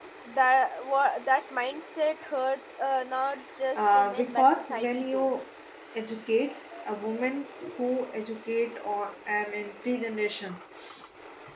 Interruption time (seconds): 3.8 s

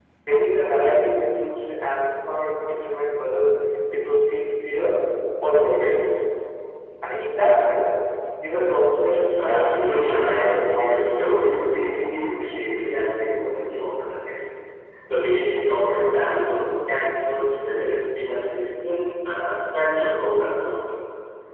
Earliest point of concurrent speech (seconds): 9.3 s

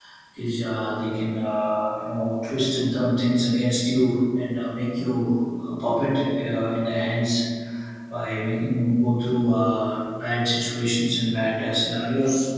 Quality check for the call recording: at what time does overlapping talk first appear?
none

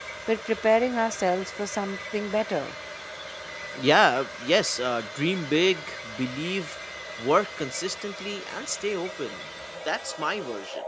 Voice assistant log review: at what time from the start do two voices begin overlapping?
none

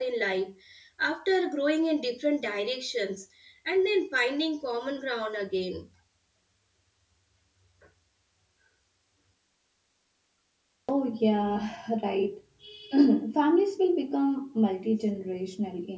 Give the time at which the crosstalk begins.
none

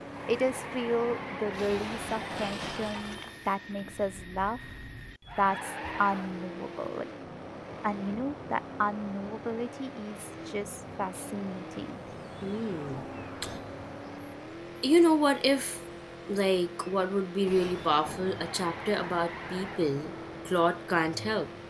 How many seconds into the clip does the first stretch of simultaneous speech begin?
none

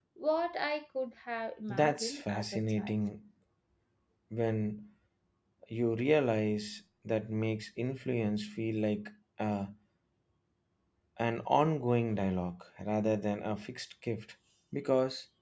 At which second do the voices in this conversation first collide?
1.7 s

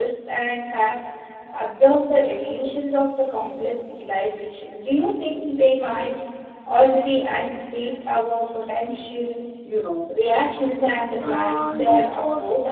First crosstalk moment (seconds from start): 11.2 s

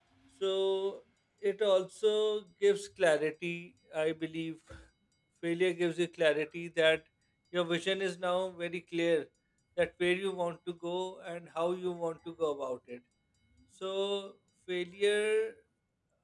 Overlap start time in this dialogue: none

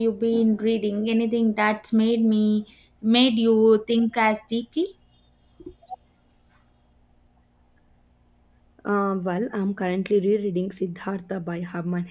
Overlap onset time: none

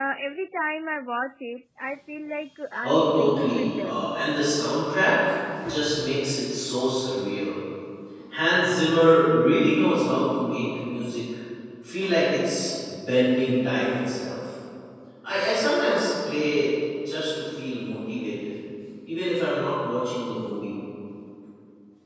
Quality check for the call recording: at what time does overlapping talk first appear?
2.8 s

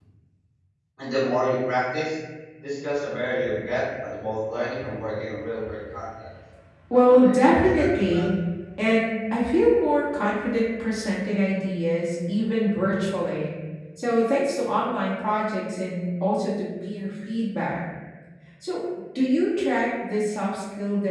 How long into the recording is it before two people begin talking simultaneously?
6.9 s

